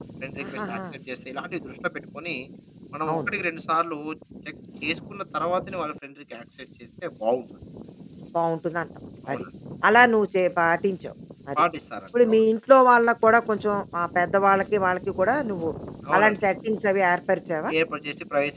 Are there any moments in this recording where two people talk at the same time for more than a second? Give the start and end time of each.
none

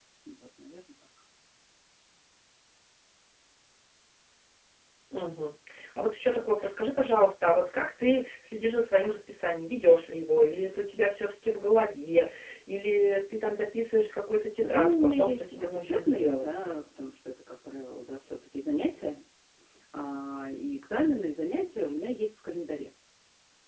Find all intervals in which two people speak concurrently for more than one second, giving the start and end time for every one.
14.6-16.6

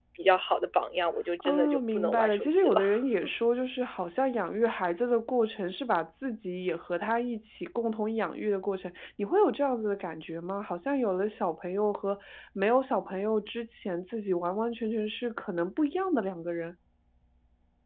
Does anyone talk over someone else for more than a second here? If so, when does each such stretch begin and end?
1.4-2.8

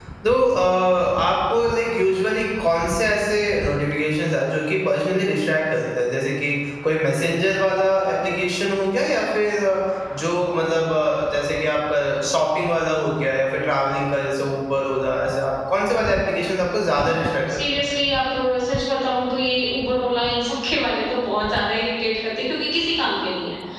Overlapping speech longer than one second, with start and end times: none

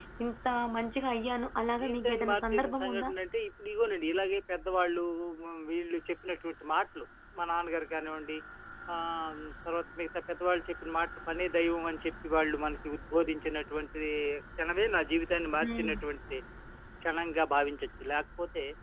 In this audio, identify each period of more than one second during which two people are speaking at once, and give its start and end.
1.8-3.1

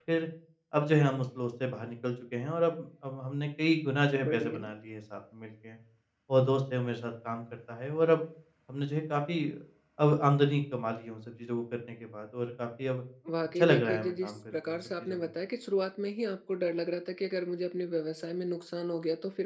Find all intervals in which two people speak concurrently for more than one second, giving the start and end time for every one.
13.6-15.2

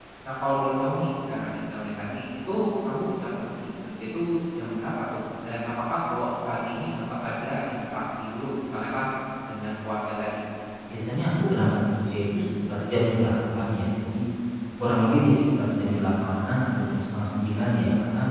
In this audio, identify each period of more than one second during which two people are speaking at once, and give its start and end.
none

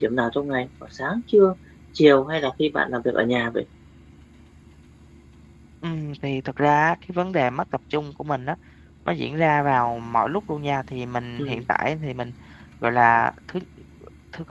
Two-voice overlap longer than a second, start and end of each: none

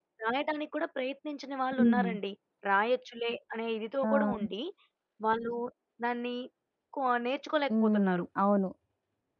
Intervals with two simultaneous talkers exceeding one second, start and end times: none

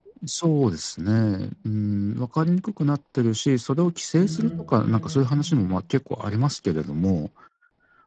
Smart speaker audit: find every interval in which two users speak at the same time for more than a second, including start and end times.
4.2-5.6

